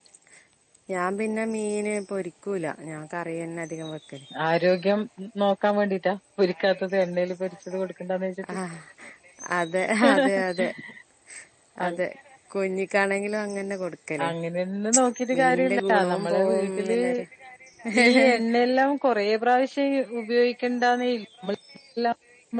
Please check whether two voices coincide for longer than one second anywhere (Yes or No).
Yes